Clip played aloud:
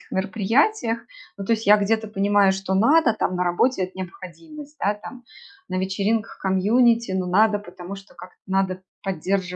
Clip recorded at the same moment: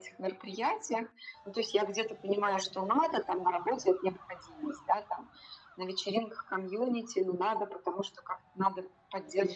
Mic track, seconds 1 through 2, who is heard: echo only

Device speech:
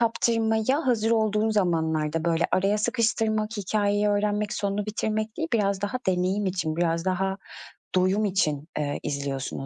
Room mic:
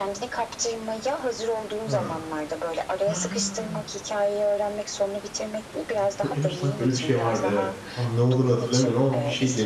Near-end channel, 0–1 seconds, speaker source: echo only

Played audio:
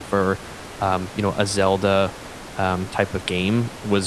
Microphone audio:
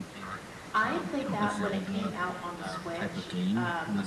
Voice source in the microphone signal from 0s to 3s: both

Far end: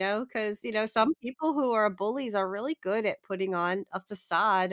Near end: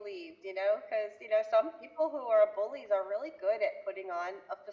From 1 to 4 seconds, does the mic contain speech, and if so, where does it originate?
echo only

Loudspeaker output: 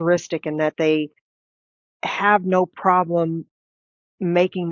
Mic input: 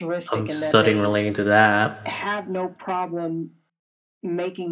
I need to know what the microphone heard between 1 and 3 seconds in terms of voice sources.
both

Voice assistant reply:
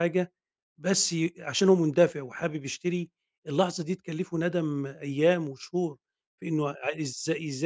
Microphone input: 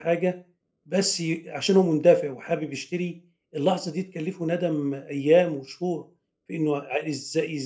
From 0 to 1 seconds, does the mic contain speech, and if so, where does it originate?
echo only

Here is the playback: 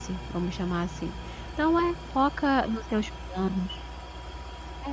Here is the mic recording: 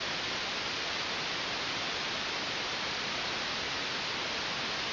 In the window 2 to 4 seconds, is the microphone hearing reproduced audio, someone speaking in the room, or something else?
neither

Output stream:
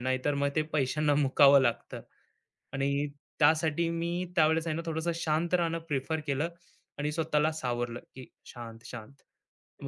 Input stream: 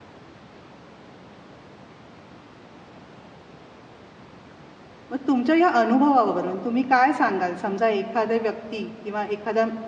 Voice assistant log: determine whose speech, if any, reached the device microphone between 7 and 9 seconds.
user only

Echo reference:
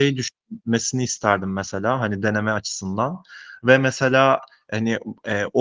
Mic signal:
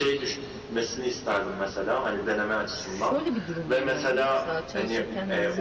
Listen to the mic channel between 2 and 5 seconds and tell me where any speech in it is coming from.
both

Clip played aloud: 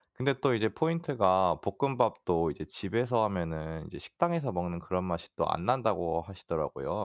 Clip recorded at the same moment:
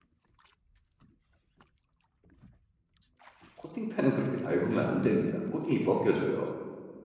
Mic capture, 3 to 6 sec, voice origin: user only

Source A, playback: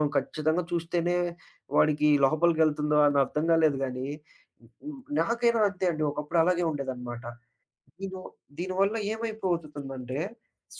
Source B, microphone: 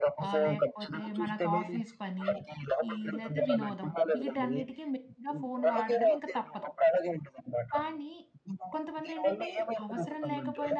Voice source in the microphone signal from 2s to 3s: both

